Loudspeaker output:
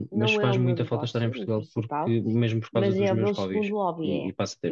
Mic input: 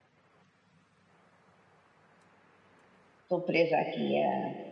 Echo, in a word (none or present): none